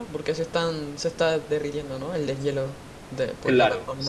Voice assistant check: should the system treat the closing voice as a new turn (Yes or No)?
Yes